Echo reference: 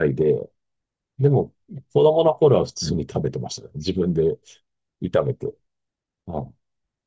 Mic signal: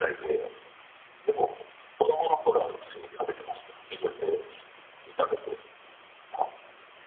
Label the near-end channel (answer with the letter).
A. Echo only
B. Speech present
A